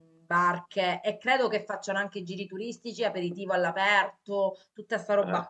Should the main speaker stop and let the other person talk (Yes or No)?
No